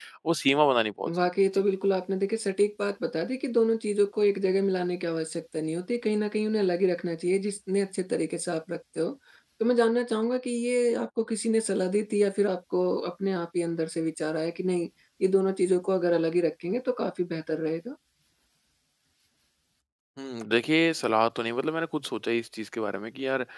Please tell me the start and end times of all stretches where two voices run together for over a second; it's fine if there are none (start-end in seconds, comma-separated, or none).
none